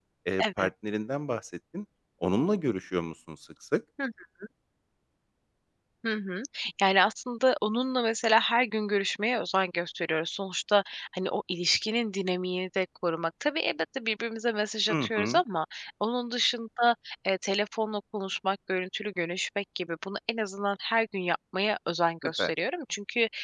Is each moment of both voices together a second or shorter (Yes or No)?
Yes